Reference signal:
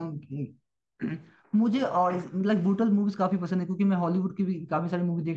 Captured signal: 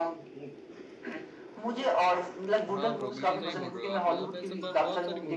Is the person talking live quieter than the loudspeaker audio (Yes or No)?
Yes